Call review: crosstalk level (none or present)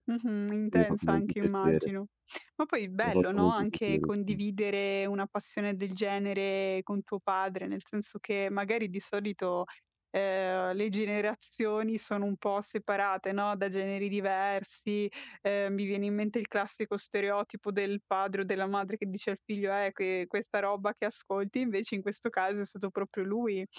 present